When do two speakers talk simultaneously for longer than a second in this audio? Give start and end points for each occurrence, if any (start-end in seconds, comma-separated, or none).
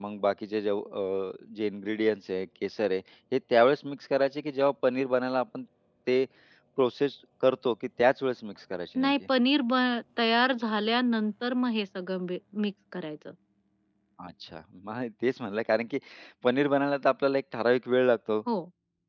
none